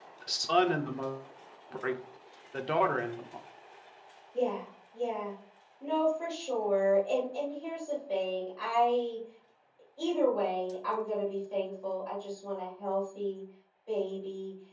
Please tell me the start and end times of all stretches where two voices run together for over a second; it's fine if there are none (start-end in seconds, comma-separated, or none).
none